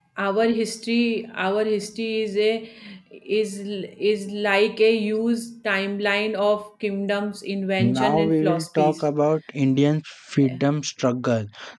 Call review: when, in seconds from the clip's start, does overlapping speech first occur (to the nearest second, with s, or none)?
8 s